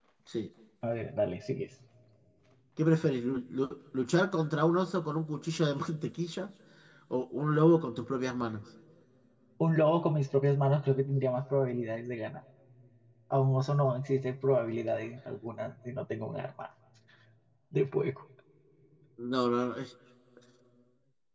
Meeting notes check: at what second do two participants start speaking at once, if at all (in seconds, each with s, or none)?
none